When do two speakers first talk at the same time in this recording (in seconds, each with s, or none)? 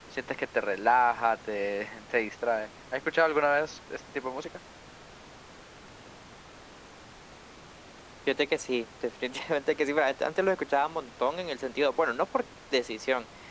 none